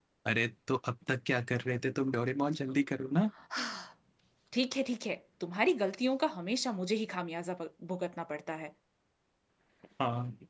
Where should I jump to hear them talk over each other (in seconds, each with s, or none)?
none